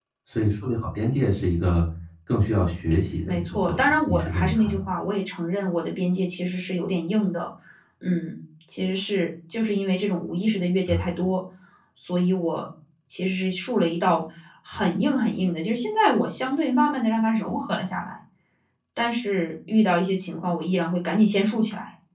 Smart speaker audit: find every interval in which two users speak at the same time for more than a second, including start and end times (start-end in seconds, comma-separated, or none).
3.3-4.8